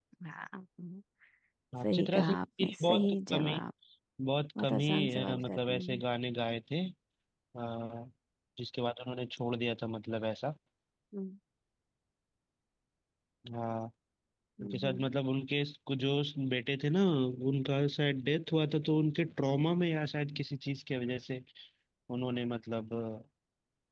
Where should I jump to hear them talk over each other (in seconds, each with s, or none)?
1.8 s